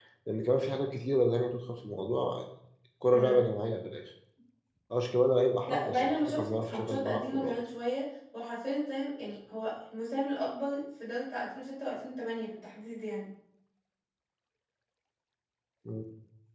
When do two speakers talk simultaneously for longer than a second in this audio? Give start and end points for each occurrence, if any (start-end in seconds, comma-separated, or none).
5.7-7.5